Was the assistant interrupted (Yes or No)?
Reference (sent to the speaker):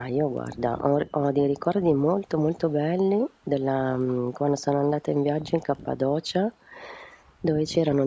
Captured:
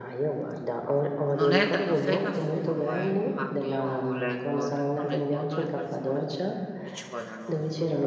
Yes